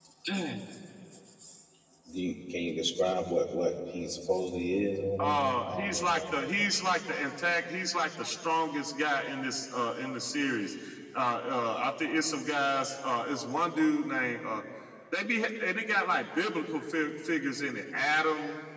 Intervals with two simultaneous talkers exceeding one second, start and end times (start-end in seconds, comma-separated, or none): 5.2-6.5